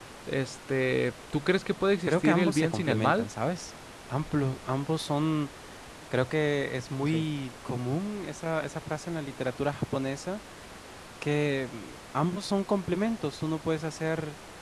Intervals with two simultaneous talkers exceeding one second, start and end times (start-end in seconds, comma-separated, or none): 2.1-3.3